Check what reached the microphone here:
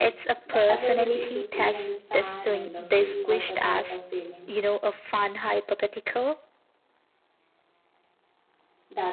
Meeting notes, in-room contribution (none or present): present